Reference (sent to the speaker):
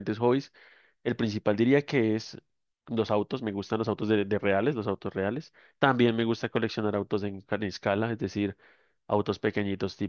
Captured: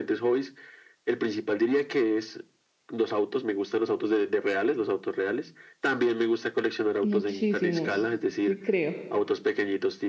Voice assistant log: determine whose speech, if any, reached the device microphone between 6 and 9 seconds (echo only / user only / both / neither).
both